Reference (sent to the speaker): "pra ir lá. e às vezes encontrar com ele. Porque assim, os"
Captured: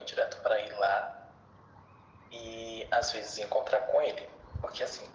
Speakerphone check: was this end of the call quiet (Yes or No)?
Yes